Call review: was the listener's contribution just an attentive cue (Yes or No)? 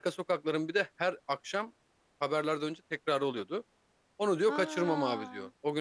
Yes